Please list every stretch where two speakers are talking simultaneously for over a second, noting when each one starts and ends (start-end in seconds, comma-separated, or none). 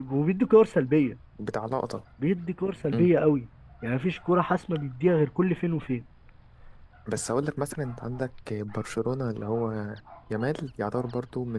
none